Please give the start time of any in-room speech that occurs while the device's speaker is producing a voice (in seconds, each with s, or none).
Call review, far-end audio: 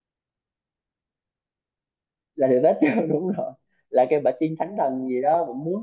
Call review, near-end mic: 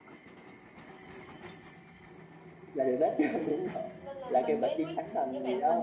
4.0 s